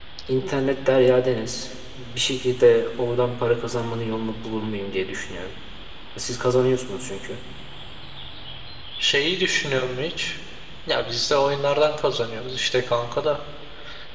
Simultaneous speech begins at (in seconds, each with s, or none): none